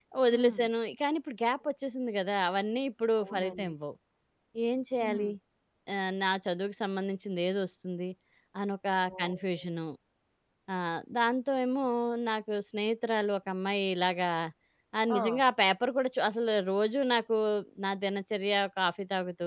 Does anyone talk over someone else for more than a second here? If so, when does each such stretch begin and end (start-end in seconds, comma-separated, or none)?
none